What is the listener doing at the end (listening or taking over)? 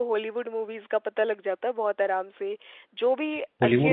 taking over